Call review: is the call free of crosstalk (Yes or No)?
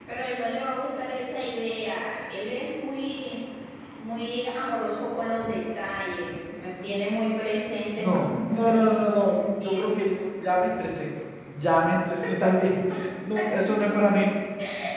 No